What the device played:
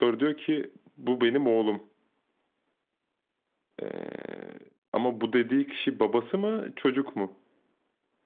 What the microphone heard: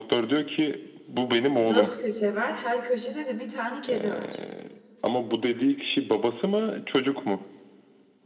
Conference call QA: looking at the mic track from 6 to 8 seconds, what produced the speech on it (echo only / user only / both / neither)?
echo only